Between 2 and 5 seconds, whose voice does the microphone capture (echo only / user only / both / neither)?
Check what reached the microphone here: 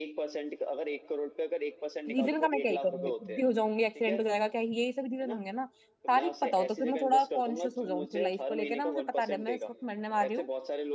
both